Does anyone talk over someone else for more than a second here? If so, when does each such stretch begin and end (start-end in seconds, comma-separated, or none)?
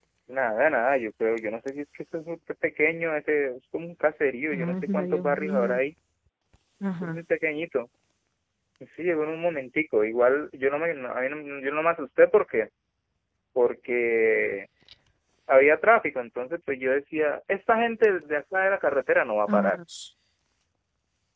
4.5-5.8